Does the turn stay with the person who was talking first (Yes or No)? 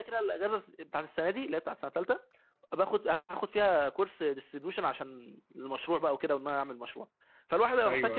Yes